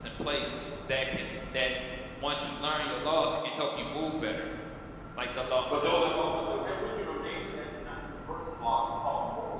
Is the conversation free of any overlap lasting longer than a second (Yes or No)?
Yes